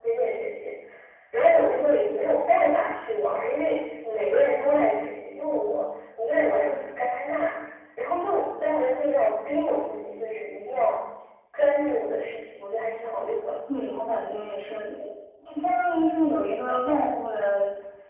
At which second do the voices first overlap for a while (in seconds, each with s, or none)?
none